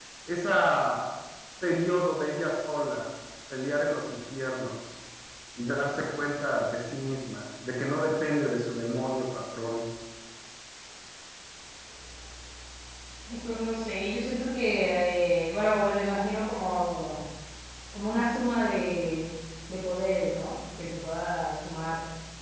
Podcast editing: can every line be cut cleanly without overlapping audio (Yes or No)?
Yes